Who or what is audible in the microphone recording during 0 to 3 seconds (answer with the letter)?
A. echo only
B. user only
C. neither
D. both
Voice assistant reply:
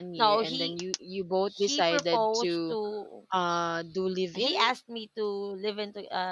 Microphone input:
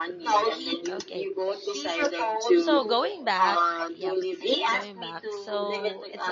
D